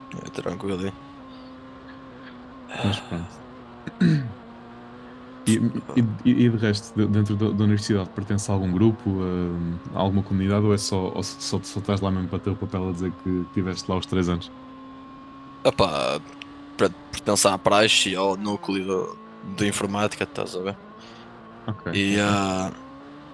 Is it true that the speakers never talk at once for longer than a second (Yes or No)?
Yes